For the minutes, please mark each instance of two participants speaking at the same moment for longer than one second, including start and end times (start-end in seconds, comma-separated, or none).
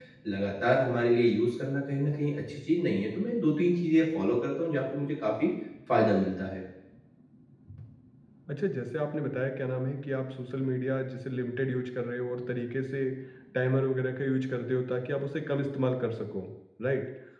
none